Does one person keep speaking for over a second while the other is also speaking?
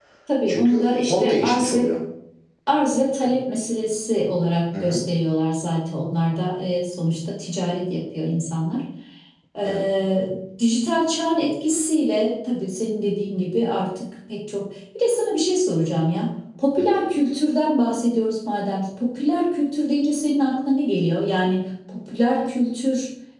Yes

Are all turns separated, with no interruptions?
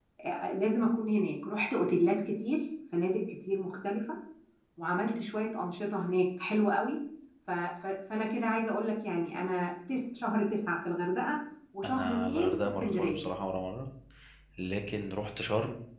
No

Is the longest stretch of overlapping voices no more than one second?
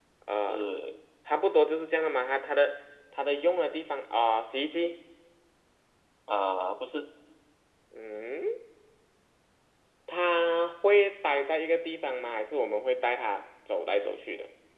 Yes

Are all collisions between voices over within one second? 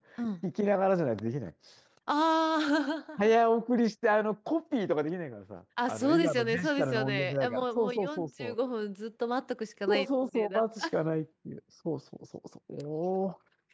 No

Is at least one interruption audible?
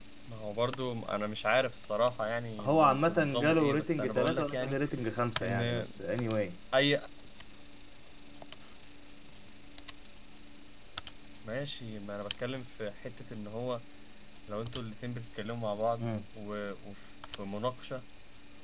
Yes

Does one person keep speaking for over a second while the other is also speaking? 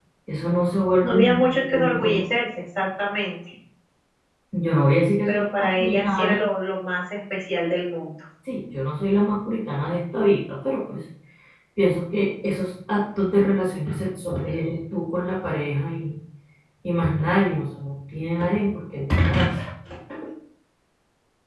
Yes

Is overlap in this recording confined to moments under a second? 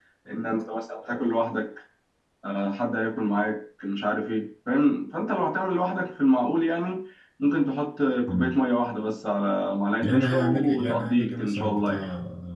No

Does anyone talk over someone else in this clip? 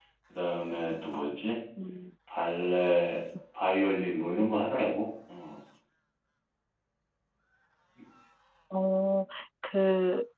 No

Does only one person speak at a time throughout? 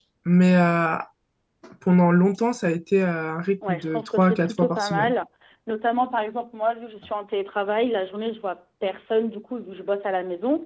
No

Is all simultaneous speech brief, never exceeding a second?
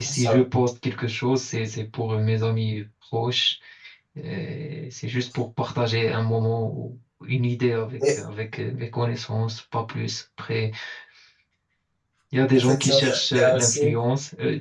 No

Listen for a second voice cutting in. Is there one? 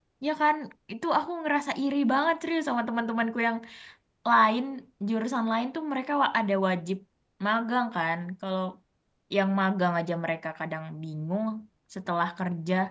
No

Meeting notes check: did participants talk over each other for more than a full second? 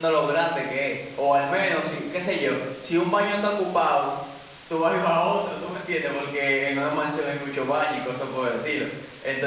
No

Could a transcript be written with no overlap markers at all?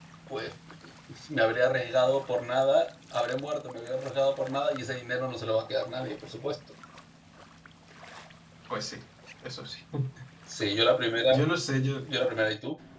Yes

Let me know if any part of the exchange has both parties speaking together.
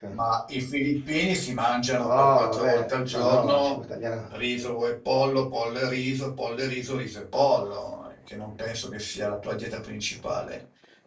Yes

